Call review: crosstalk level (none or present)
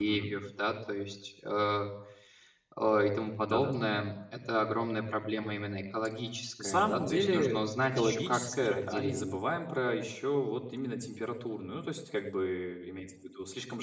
present